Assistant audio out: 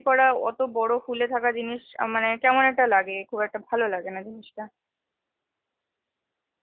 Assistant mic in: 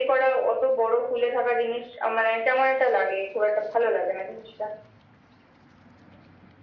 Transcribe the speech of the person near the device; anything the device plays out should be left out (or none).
none